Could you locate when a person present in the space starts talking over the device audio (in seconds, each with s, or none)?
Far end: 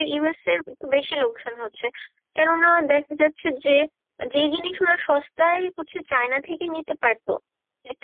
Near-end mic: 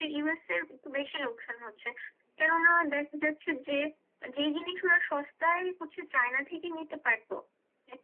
none